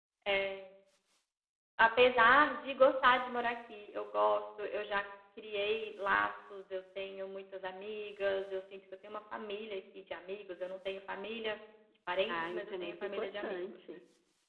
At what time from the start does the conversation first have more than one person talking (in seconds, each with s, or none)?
12.3 s